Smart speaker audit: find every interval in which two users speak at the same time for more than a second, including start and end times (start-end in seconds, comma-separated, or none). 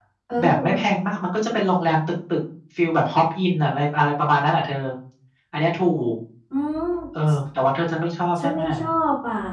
none